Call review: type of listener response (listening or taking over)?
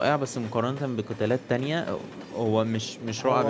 taking over